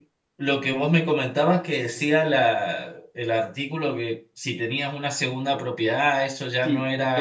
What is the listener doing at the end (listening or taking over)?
taking over